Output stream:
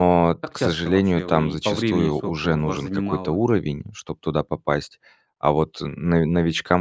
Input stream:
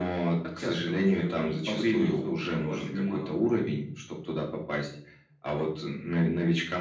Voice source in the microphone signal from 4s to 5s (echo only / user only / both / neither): echo only